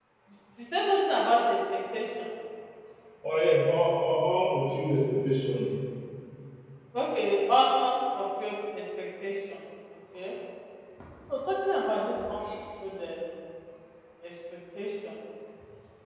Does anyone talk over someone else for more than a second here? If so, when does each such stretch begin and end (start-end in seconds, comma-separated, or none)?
none